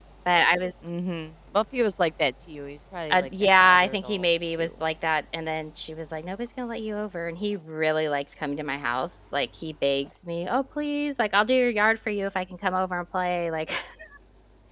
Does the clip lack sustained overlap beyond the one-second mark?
No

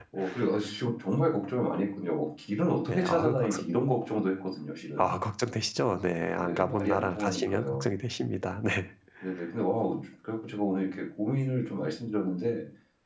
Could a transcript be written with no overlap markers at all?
No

